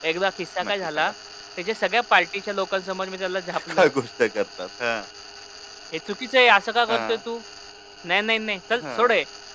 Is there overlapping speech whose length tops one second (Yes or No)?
No